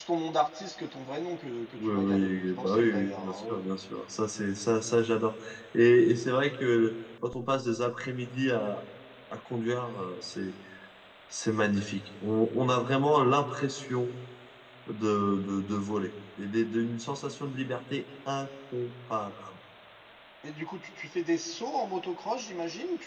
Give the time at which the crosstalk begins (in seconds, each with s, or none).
1.8 s